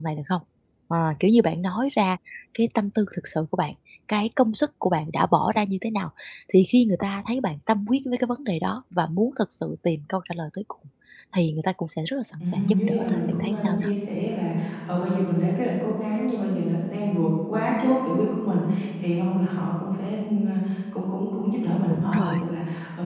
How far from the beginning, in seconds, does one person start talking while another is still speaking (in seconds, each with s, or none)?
12.4 s